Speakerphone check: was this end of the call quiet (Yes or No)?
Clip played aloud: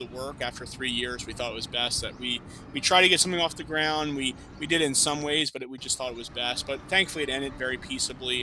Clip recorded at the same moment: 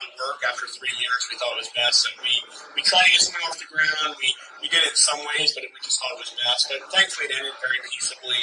Yes